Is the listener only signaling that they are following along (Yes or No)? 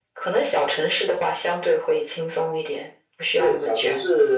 No